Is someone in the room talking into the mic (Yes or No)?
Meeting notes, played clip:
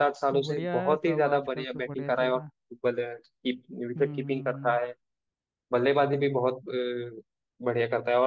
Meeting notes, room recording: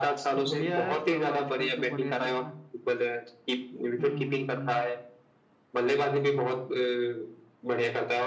No